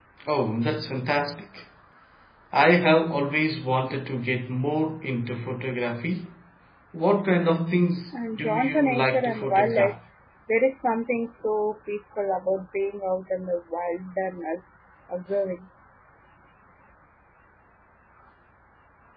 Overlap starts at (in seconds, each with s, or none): 8.1 s